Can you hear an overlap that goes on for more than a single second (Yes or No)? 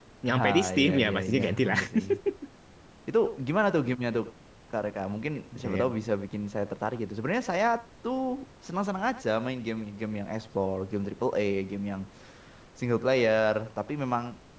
Yes